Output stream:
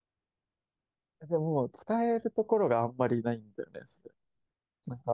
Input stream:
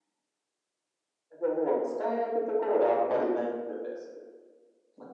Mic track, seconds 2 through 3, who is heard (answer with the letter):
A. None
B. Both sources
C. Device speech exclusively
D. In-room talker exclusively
C